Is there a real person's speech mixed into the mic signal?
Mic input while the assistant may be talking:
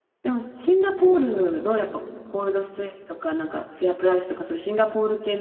Yes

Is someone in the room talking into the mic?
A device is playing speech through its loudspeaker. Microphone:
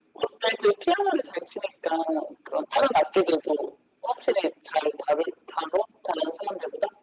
No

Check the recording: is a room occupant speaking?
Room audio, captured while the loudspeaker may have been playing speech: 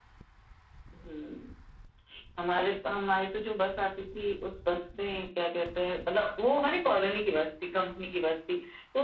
No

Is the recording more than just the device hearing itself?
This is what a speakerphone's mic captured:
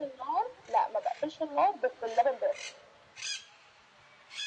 No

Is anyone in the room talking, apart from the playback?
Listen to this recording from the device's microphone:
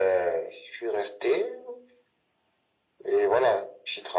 No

